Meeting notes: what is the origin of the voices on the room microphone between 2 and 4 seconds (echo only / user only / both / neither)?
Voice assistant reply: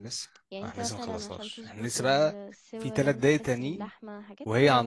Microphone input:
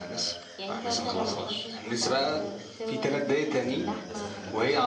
both